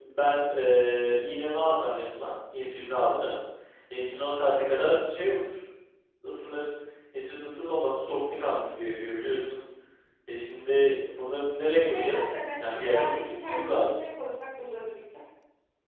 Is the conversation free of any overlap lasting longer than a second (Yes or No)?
No